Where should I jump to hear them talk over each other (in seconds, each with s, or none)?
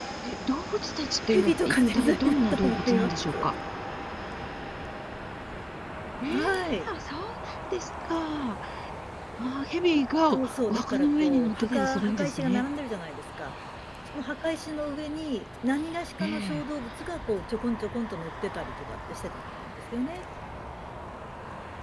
1.3 s